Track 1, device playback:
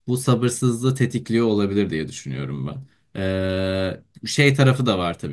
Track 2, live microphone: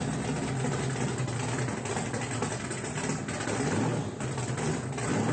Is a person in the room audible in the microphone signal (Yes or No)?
No